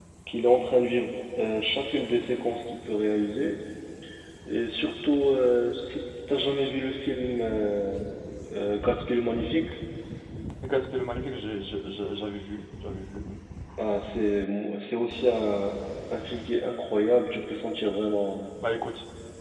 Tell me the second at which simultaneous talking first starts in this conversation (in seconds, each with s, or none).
none